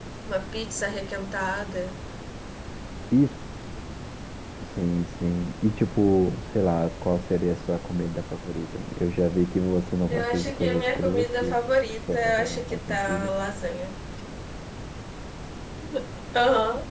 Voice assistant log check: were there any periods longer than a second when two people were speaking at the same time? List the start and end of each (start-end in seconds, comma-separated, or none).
10.1-11.6, 12.1-13.3